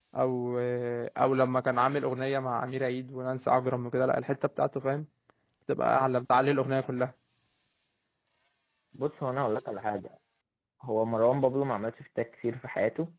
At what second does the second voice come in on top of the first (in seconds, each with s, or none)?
none